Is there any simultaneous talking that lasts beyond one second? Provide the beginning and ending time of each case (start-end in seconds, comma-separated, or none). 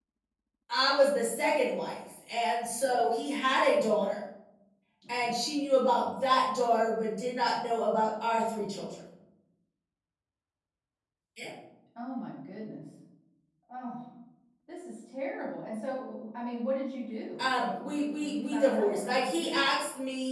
17.4-19.6